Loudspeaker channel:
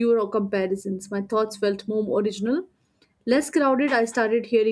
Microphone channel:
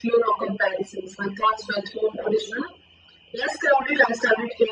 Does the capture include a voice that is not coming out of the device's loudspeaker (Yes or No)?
No